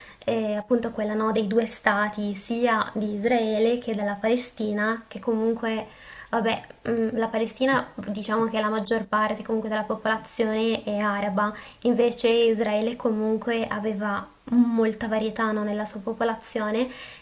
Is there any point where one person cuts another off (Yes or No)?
No